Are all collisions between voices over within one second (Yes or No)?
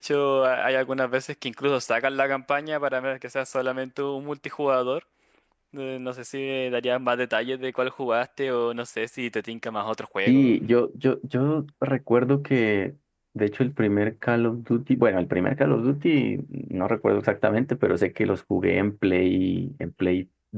Yes